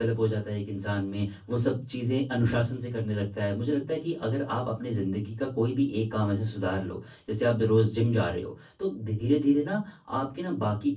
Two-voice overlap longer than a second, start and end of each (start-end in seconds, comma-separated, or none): none